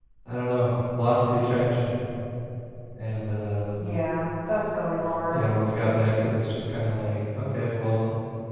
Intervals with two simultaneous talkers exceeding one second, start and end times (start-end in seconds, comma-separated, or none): none